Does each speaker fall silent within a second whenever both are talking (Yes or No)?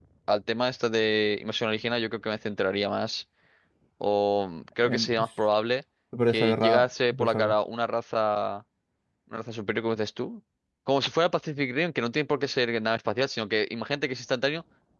No